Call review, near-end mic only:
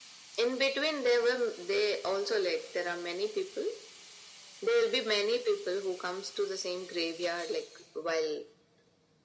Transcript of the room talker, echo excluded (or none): none